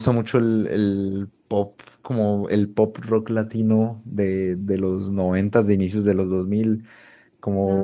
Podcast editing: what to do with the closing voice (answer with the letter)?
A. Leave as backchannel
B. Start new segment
A